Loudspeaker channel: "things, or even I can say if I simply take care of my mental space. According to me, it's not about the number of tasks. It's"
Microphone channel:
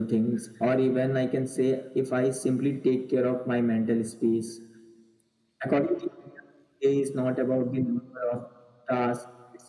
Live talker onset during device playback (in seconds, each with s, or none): none